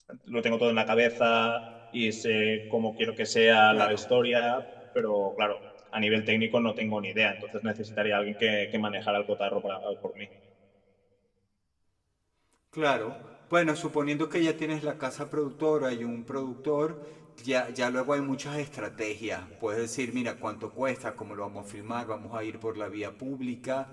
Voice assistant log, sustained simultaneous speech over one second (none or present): none